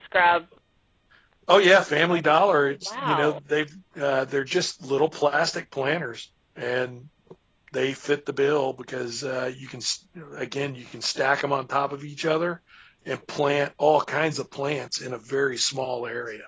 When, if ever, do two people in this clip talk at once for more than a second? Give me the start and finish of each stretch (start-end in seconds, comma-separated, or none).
2.1-3.4